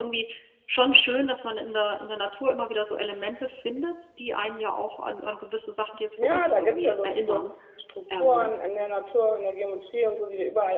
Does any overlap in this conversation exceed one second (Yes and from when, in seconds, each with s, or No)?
Yes, from 6.2 s